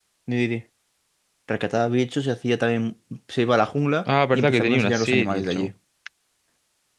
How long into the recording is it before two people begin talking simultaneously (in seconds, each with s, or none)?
4.3 s